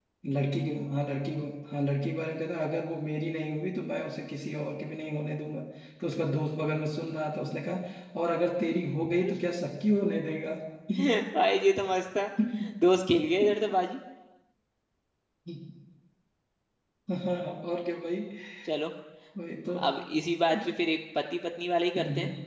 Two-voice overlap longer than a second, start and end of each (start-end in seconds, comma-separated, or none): none